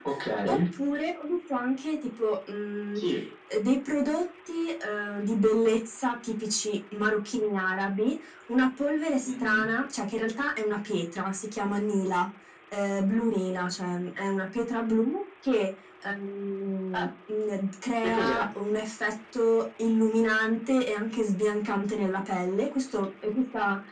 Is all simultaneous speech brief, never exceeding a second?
Yes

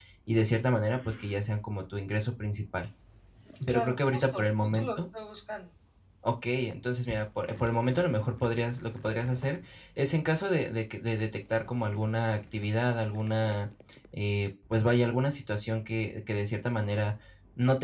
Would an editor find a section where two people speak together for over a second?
Yes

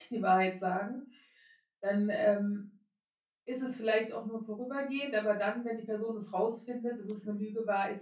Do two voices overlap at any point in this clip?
No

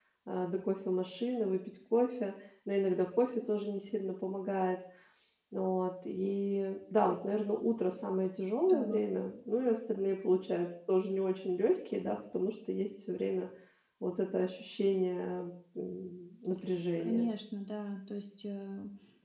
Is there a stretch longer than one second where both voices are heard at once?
No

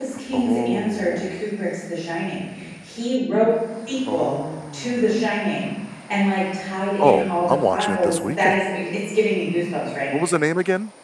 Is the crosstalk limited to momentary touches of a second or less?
No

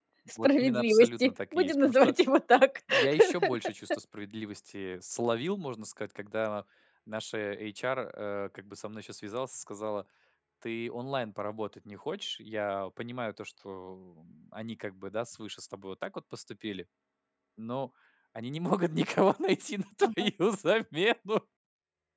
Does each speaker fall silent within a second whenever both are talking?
No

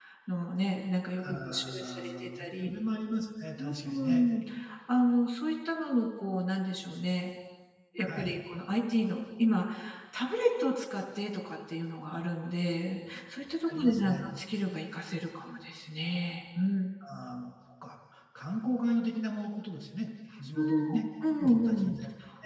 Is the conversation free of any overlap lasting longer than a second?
No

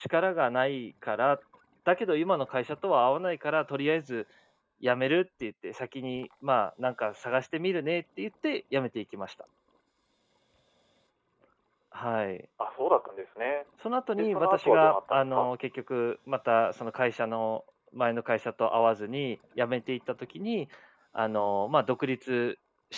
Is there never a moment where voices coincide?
No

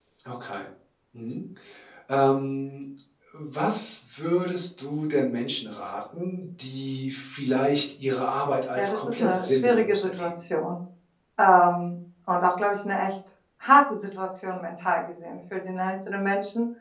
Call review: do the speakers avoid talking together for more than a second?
No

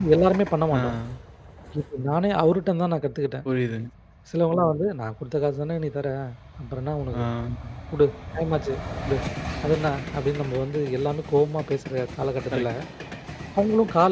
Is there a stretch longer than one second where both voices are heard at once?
No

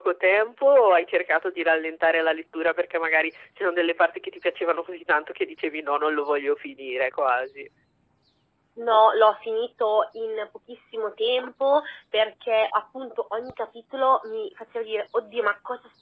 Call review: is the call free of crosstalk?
Yes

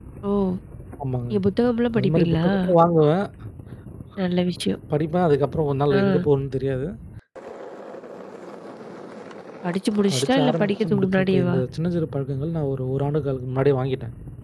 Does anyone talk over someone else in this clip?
Yes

